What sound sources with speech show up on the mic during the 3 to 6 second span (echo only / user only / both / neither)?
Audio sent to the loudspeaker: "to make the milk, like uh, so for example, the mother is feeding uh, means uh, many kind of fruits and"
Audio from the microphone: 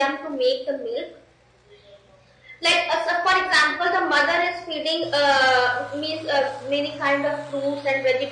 echo only